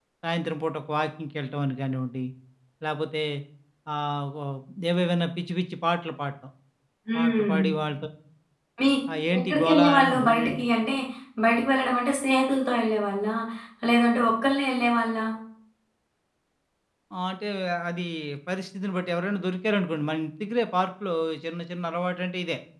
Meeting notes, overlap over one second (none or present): present